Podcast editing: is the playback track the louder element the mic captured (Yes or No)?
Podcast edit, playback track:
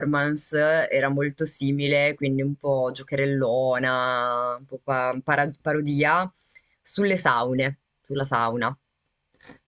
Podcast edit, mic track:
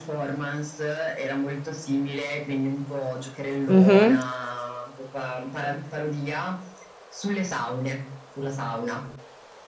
No